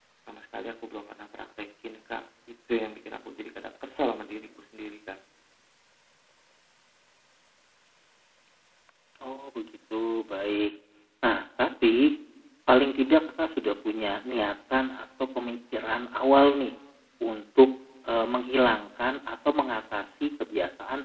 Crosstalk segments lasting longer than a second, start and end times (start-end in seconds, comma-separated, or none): none